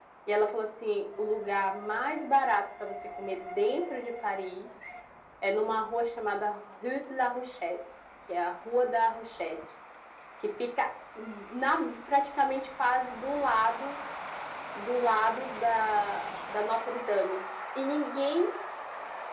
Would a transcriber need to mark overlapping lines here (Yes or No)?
No